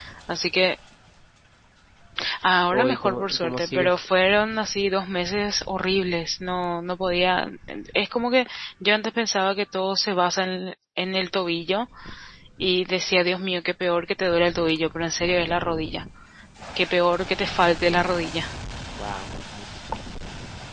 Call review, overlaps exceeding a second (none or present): present